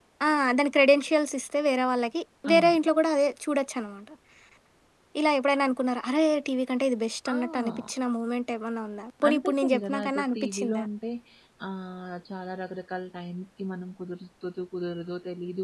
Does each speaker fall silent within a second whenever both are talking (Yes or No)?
No